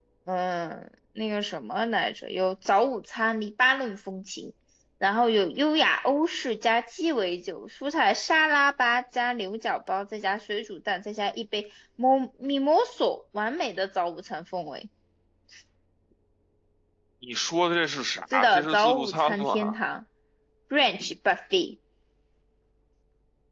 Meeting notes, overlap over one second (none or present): present